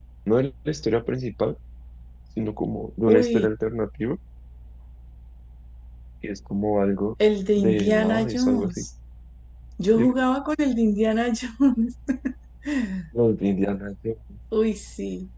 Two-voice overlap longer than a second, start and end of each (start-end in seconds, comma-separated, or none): 7.6-8.8